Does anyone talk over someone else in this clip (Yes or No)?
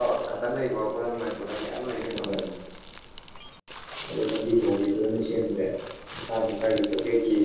No